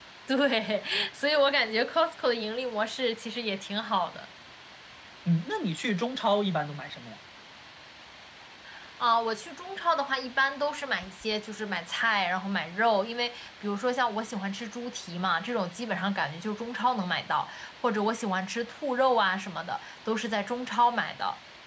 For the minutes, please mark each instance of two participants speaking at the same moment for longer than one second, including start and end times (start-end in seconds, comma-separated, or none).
none